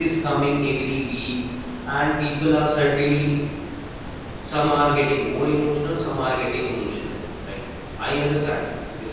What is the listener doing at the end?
listening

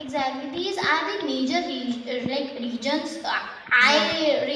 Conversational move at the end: listening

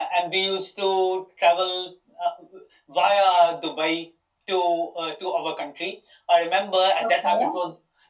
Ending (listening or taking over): listening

